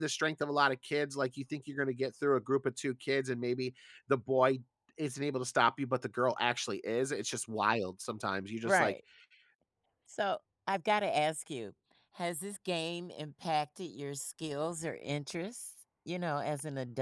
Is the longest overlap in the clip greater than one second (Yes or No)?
No